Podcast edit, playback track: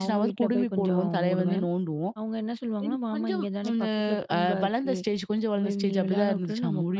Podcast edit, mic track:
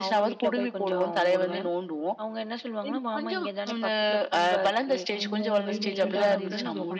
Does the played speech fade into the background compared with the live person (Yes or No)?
No